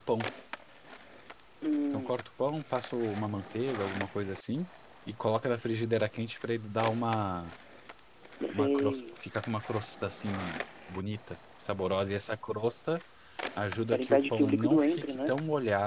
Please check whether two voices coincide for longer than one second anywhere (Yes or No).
Yes